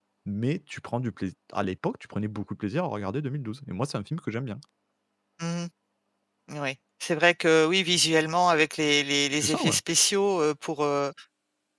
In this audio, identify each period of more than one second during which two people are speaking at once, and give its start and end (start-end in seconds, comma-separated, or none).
none